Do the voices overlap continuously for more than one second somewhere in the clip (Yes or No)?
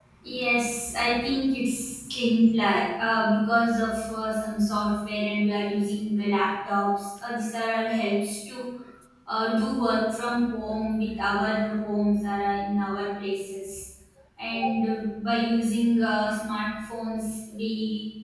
No